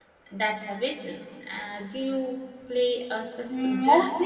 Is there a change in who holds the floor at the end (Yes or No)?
Yes